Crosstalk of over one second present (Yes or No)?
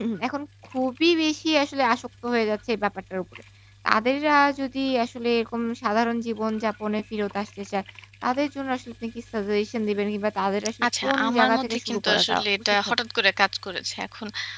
Yes